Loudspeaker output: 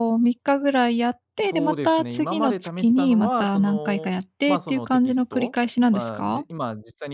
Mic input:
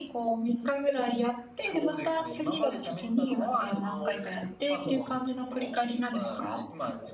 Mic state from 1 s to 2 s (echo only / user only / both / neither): echo only